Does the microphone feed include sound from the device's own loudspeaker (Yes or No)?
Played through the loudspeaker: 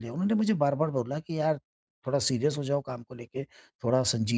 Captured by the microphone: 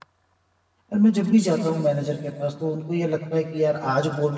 No